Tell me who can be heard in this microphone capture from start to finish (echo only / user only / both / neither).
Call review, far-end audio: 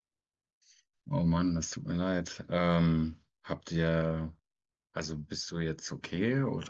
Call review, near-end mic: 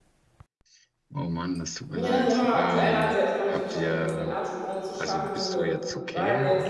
both